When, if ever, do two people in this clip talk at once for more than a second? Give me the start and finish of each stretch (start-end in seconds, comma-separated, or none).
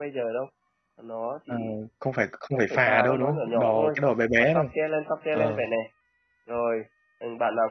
2.5-4.0